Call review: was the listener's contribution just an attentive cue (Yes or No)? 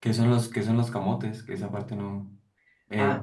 No